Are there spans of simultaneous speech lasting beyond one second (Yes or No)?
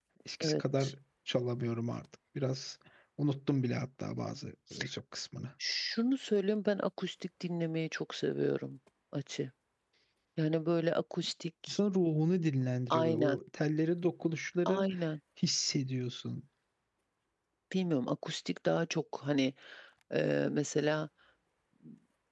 No